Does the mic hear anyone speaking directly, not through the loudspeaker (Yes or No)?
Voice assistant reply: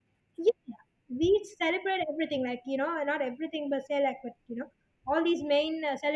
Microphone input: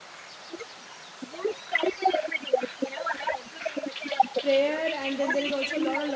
Yes